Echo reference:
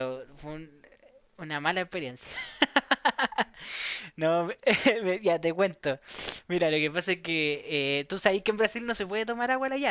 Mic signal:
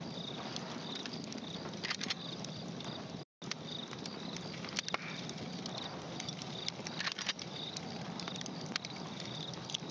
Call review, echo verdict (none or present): none